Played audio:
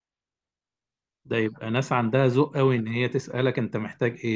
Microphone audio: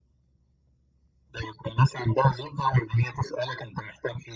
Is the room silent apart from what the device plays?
Yes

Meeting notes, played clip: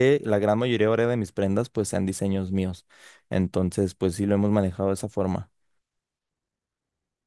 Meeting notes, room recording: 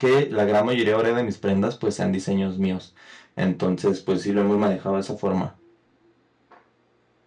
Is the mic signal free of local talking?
Yes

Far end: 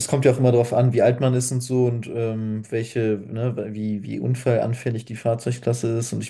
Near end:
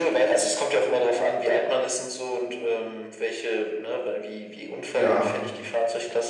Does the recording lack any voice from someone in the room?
No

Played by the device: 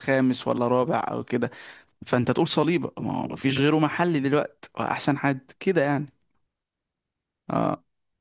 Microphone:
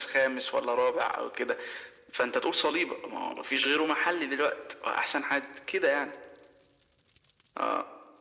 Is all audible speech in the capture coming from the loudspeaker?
Yes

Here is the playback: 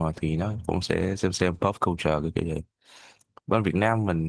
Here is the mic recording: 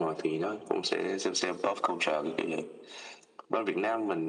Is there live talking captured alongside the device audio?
No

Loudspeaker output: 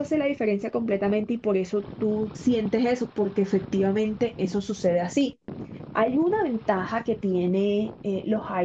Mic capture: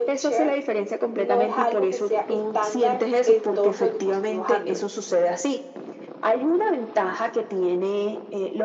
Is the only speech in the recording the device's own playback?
No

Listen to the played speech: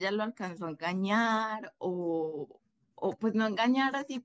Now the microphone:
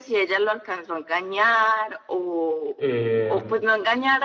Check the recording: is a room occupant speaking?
Yes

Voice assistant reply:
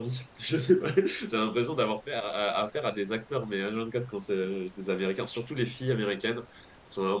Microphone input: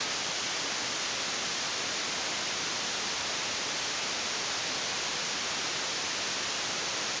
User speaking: No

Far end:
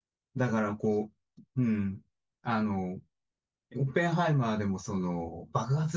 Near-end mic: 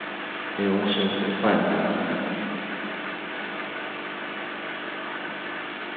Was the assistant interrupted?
Yes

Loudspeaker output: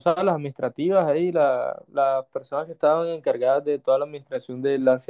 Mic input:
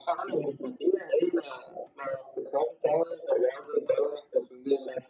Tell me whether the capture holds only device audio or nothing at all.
Yes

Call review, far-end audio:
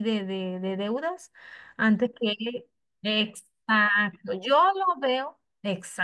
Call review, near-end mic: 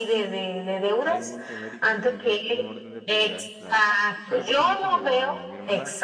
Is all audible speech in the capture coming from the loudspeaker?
No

